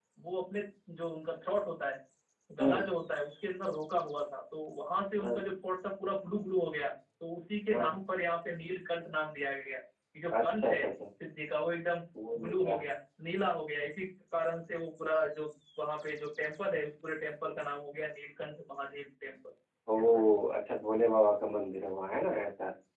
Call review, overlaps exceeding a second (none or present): none